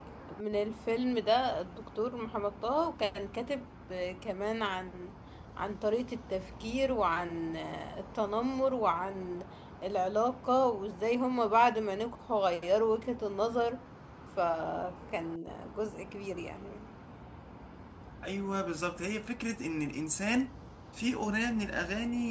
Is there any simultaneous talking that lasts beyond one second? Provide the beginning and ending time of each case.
none

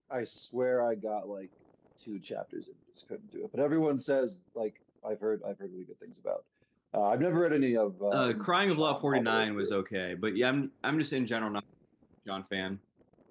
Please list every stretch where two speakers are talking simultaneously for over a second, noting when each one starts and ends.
8.1-9.7

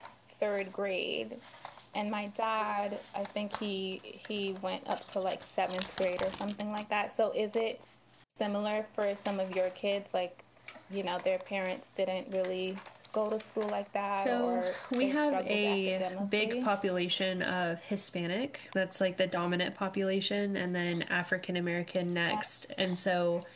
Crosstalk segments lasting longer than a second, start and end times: 14.1-16.7

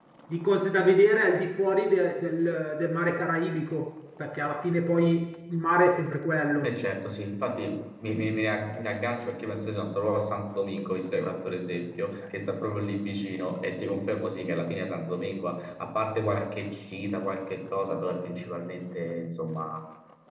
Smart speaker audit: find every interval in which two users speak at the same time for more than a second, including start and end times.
none

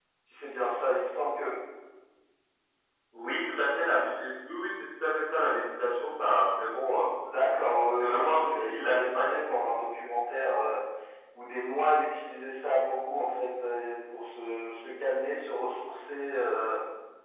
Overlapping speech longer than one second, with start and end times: 7.7-9.3

